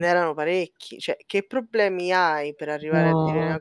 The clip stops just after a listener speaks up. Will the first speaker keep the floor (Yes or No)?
Yes